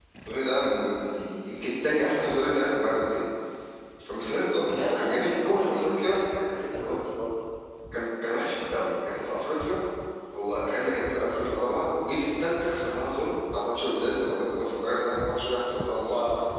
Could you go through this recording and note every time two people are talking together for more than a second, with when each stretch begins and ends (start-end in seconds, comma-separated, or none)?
4.7-6.2